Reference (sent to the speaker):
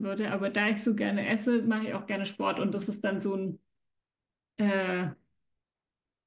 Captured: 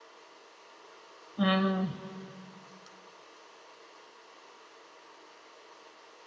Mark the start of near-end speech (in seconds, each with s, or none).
1.4 s